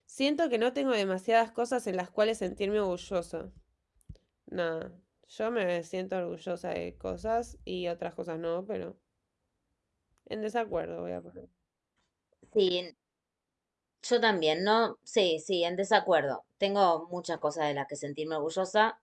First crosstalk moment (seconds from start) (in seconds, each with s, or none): none